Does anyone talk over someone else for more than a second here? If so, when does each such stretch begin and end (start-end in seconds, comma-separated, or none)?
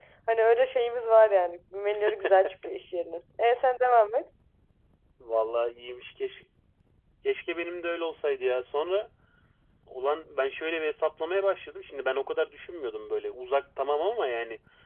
none